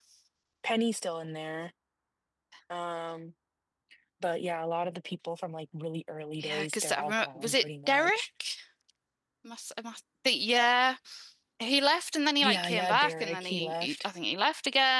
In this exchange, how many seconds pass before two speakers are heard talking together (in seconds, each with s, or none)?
6.4 s